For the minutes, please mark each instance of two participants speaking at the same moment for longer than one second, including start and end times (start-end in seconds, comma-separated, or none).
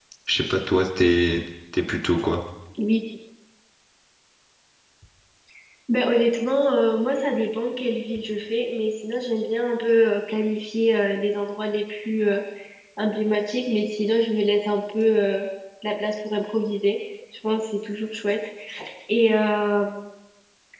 none